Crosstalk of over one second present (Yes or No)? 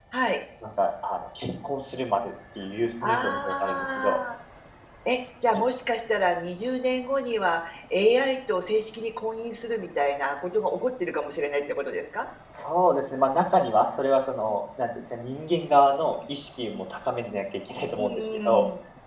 Yes